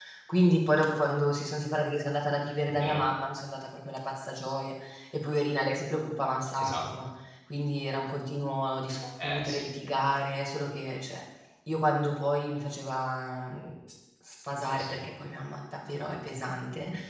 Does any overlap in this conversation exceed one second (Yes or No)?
No